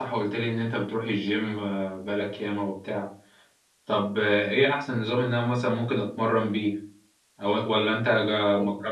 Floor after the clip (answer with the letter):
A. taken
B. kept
B